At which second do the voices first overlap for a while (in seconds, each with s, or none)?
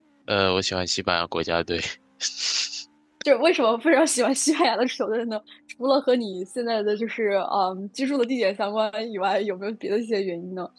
none